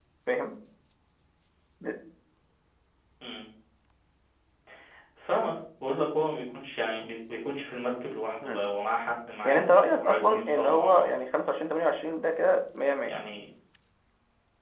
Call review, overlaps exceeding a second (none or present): present